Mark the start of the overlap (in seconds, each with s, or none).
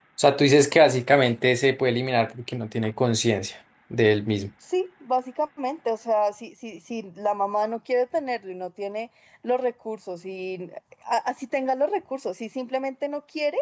none